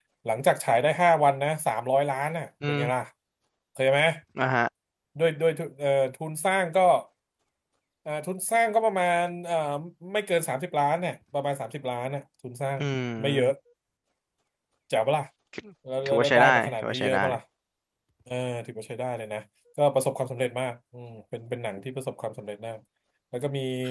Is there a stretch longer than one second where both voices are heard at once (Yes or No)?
Yes